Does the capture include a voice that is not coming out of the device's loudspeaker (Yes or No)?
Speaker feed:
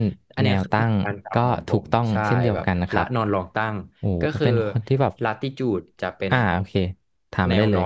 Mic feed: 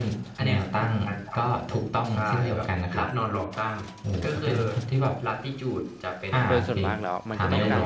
Yes